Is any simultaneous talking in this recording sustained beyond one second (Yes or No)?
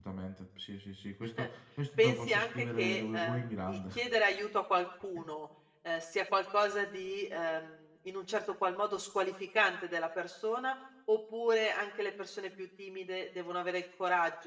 Yes